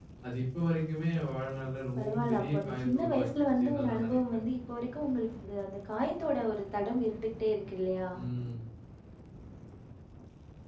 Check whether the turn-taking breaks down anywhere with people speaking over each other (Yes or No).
Yes